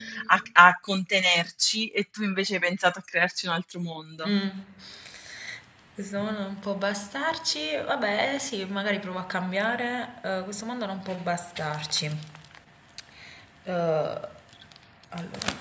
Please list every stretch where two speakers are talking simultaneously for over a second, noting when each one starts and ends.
none

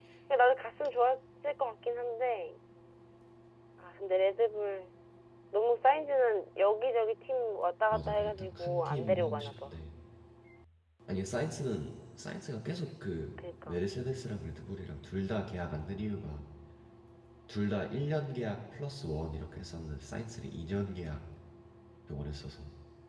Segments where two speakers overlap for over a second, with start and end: 7.9-9.7

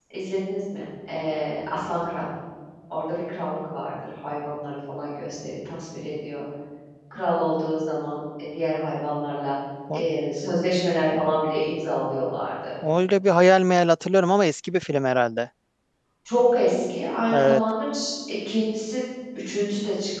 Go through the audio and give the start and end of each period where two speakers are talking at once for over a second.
none

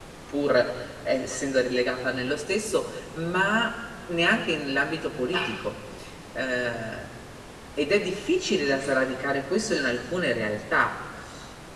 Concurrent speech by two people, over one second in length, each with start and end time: none

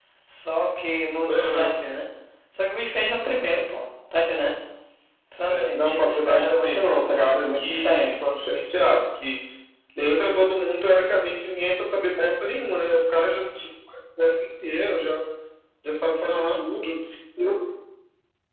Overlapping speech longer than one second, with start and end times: 5.5-8.3

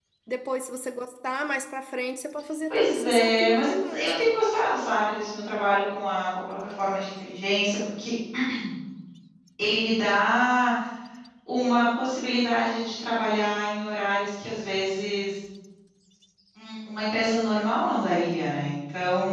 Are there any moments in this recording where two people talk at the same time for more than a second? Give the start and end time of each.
2.7-4.3

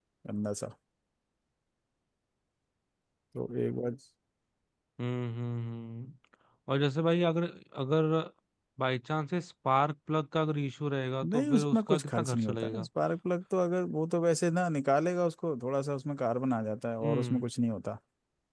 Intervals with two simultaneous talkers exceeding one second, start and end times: 11.3-12.9

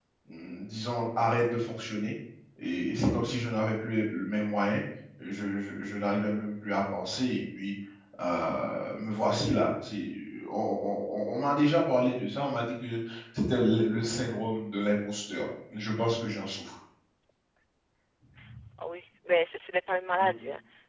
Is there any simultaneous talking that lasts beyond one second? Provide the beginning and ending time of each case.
none

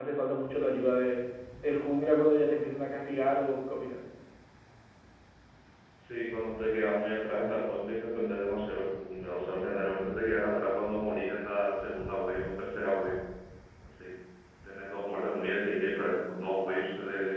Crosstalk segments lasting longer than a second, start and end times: none

